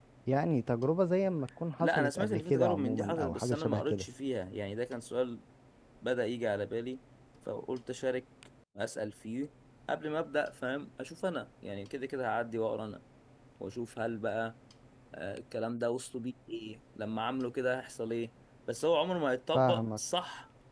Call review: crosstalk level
present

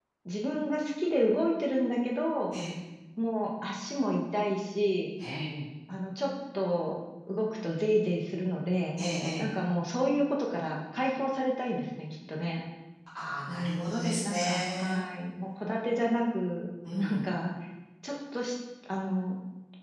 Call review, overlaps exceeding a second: present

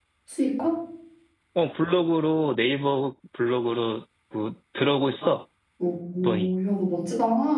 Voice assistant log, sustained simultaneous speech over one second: none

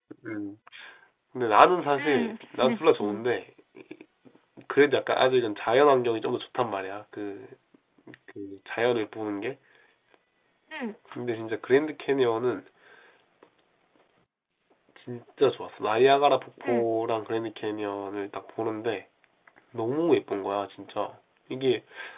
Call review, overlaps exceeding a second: present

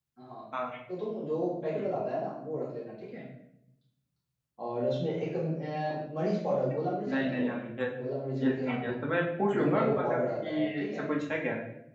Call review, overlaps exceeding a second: present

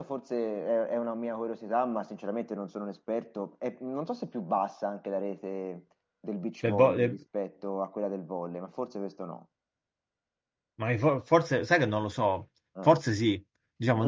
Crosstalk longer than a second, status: none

